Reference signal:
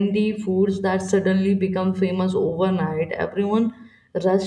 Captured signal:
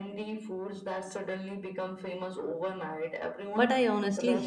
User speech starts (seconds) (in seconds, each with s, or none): 3.5 s